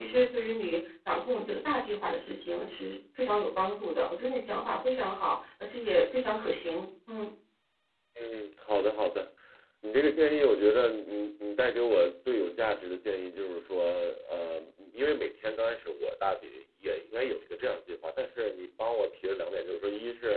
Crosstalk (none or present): none